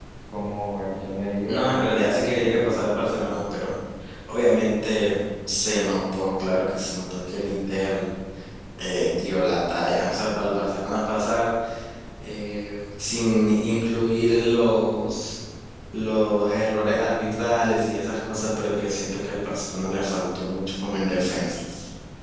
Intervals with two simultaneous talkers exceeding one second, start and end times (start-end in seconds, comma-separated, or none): 1.5-3.4